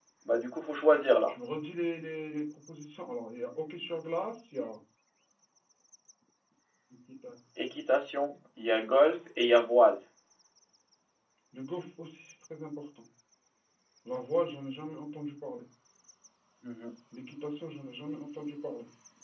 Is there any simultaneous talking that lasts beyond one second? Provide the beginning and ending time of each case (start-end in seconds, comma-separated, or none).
none